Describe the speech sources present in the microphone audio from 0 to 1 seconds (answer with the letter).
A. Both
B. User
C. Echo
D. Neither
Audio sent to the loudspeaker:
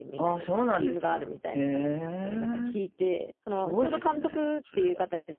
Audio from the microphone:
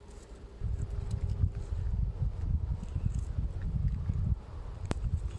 D